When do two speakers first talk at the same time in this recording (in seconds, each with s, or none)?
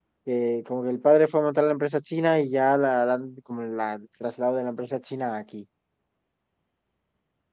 none